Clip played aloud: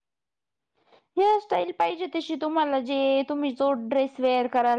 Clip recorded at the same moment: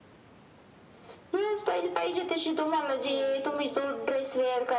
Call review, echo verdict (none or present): present